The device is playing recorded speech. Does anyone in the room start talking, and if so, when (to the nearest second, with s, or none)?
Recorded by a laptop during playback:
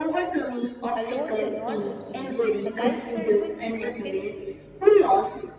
1 s